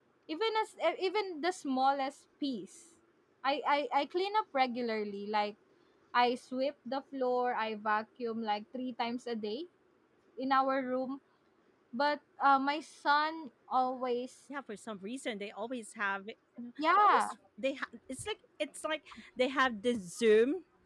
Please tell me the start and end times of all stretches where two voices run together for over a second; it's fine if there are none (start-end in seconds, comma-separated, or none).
none